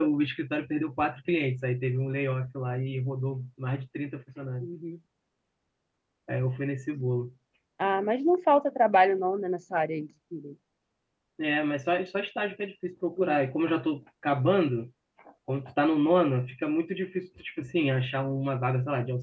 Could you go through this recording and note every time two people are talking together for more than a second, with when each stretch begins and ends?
none

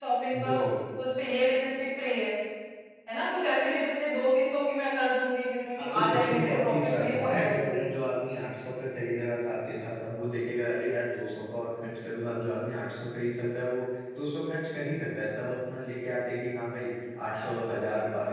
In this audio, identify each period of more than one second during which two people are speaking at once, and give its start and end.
5.9-7.9

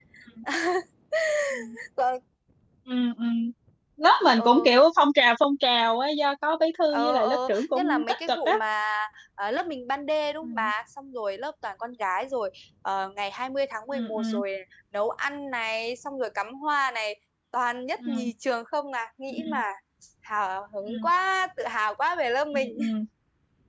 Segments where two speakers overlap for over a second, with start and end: 6.9-8.5

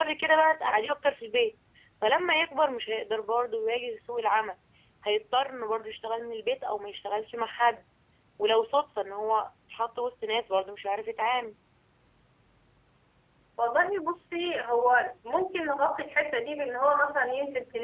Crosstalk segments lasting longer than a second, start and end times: none

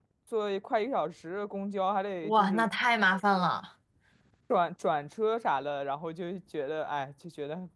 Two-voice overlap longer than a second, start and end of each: none

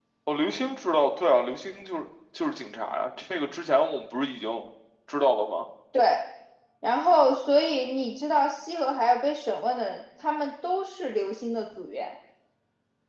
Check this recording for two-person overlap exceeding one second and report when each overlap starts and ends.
none

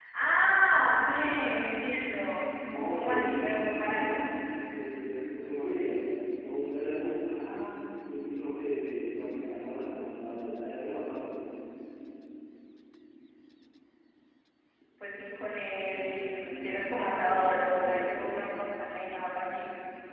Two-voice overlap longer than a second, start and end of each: 2.9-4.2, 15.9-18.3

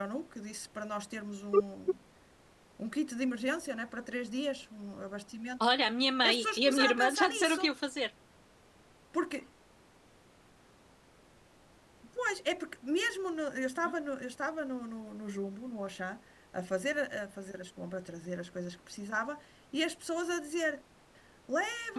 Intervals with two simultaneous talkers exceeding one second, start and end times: 6.2-7.7

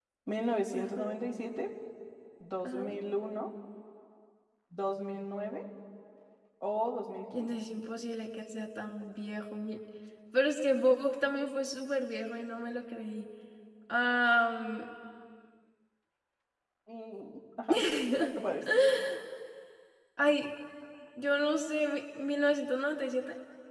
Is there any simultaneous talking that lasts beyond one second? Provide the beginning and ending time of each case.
none

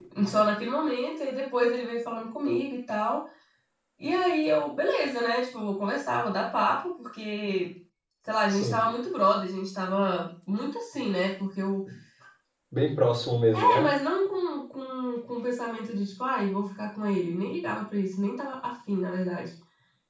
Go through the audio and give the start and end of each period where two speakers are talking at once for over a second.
none

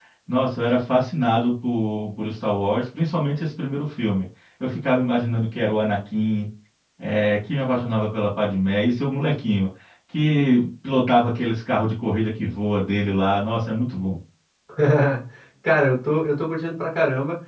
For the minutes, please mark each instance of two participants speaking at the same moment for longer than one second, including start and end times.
none

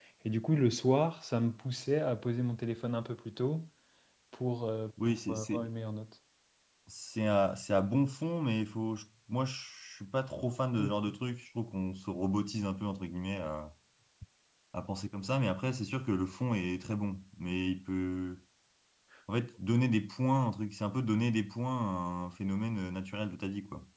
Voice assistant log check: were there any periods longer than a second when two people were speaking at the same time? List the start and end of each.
none

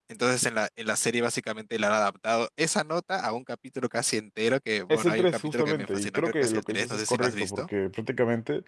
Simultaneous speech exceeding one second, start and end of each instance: 4.9-7.7

